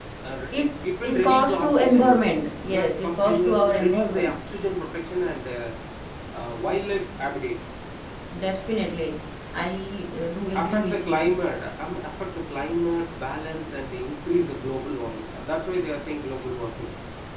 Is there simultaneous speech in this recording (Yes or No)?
Yes